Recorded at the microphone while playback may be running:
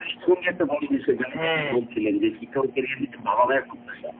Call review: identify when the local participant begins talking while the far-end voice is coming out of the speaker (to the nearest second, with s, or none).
1 s